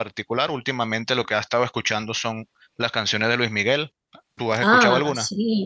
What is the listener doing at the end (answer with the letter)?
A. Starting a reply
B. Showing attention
A